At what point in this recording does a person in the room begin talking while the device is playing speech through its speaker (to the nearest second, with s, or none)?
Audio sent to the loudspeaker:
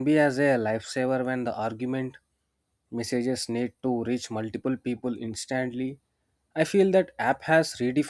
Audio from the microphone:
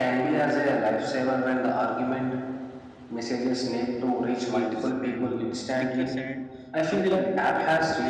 4 s